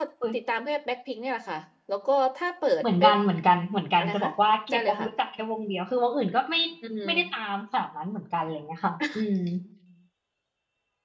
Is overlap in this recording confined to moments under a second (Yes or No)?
Yes